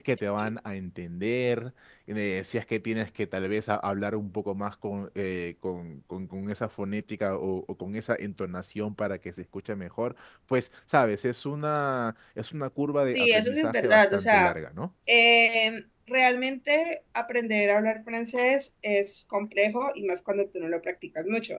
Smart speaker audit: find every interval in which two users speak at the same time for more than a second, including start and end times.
13.1-14.6

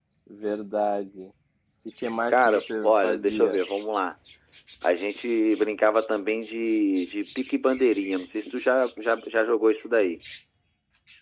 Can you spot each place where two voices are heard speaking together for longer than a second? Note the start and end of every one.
2.3-3.6

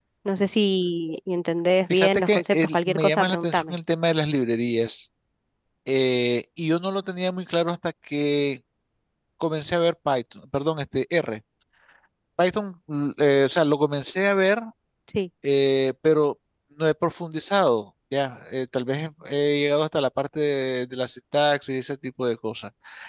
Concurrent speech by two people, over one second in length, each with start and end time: 1.9-3.7

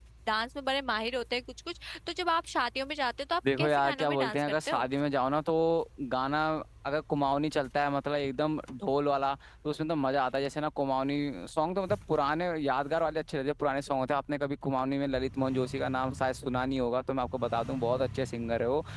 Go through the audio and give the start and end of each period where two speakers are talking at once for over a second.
3.6-4.8

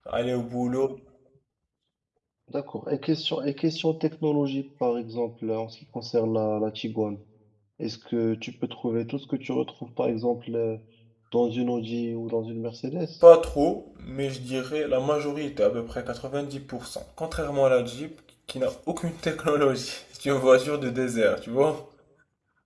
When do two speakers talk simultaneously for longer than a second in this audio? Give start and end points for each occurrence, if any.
none

